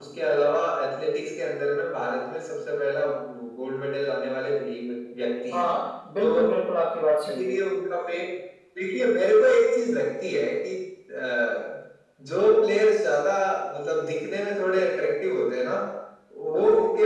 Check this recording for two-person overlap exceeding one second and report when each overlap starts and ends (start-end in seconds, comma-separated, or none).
none